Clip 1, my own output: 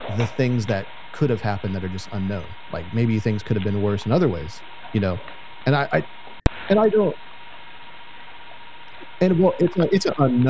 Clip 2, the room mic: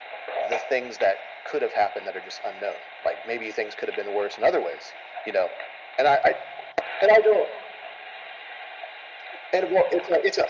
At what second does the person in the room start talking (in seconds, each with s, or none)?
none